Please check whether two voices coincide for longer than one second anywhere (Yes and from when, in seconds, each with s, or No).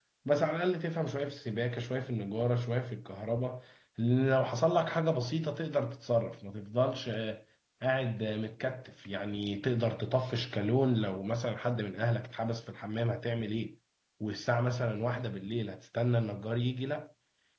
No